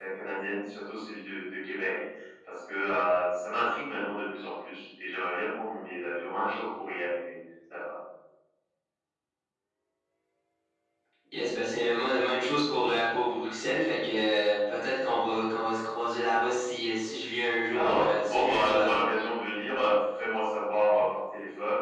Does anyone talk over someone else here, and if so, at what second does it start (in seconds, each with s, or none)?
17.7 s